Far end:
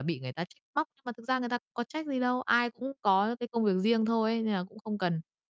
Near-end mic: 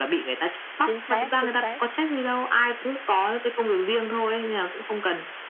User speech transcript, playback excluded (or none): Chính xác, chính xác.